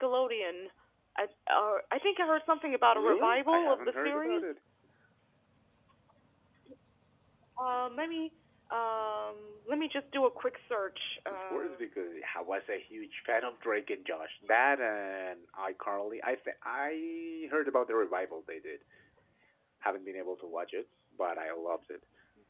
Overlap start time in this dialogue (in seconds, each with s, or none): 2.9 s